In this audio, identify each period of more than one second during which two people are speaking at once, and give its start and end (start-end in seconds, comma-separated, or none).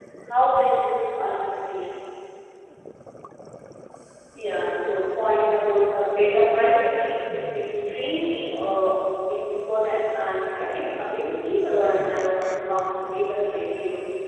none